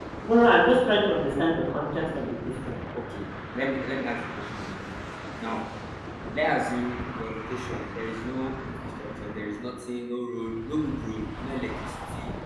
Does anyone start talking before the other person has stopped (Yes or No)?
No